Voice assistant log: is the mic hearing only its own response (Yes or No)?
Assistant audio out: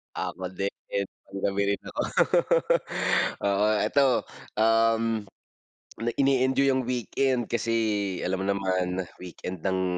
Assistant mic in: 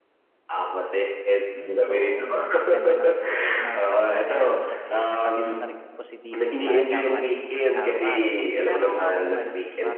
No